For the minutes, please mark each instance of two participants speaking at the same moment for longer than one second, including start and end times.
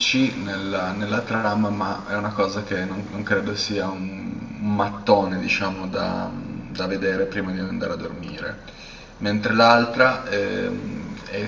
none

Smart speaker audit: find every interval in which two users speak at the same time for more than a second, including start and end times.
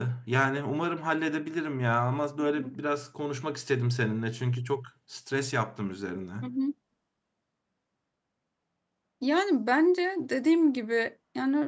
none

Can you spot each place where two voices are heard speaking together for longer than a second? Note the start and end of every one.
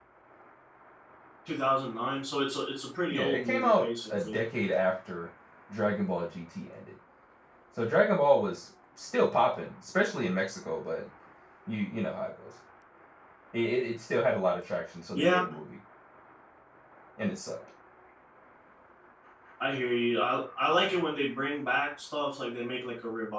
3.1-4.4

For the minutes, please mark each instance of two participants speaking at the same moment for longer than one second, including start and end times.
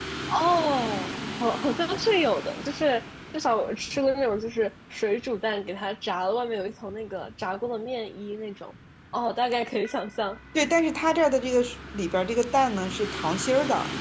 none

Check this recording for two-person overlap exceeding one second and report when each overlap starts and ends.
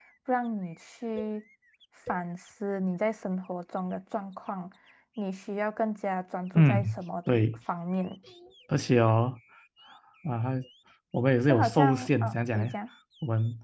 11.5-12.7

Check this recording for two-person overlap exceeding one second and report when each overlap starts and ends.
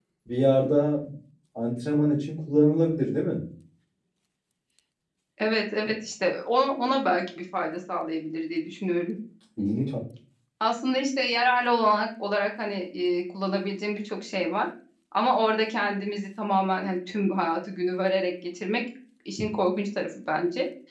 none

